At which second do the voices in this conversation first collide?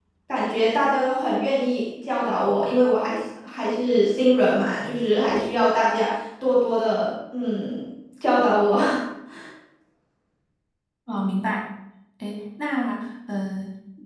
none

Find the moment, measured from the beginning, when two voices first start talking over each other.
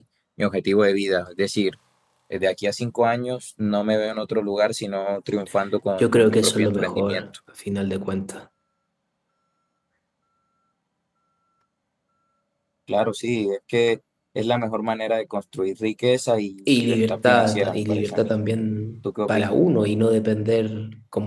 6 s

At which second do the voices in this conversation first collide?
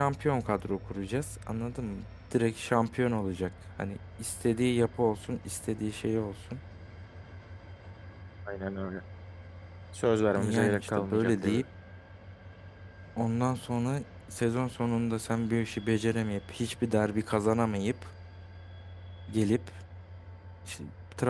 10 s

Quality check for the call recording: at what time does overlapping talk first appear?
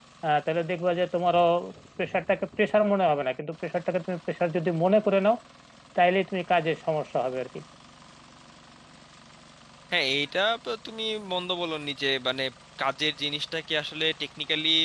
none

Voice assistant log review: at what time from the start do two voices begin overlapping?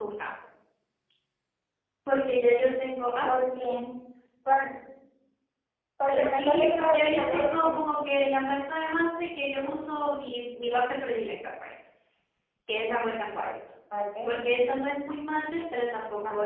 6 s

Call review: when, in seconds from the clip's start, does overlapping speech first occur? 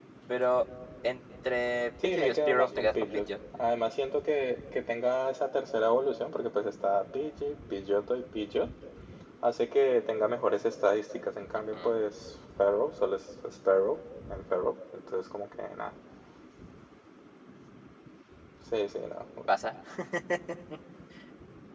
2 s

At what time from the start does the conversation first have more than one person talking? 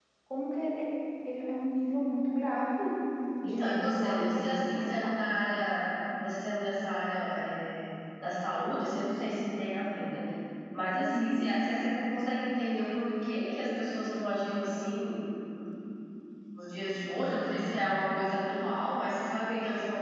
3 s

